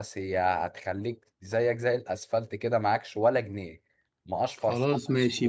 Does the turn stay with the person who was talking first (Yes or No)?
No